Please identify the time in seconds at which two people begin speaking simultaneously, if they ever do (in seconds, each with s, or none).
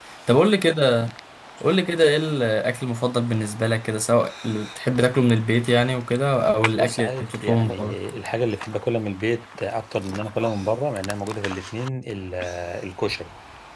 6.8 s